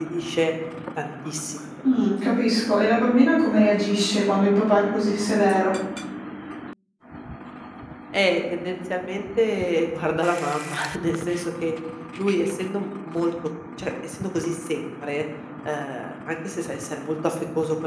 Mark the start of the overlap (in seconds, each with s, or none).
none